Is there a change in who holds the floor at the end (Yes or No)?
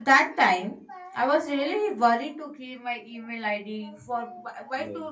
No